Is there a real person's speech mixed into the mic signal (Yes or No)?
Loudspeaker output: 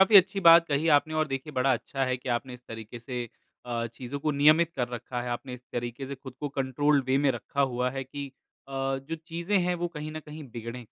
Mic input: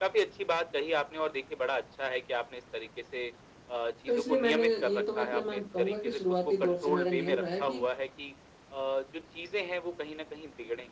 Yes